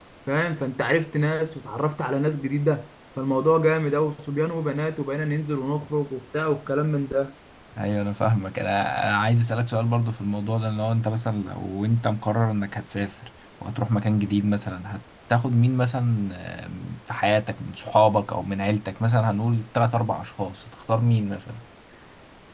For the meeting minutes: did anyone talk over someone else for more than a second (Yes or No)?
No